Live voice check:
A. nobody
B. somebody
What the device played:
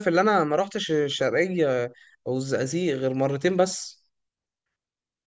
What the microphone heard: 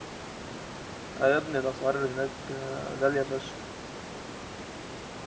B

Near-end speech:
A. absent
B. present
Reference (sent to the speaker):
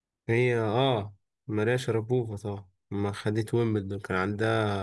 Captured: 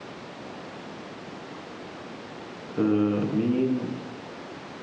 B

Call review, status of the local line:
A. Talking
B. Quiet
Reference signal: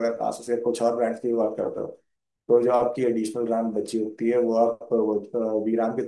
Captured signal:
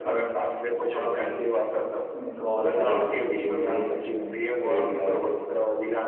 A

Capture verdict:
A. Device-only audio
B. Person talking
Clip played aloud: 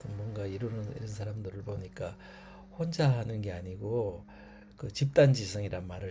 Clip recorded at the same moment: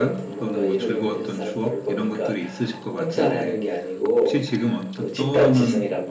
B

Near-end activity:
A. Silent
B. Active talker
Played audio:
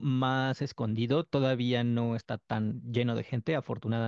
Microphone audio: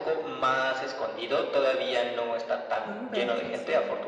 B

